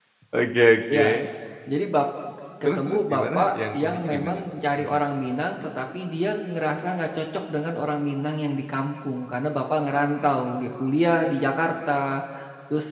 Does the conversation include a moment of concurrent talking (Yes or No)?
Yes